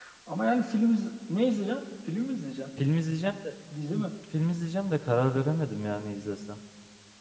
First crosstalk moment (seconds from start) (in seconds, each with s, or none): none